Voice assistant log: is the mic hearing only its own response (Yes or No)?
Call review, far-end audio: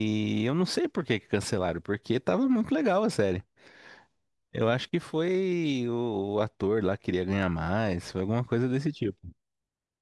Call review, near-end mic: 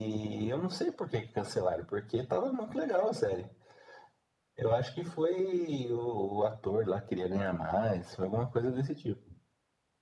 Yes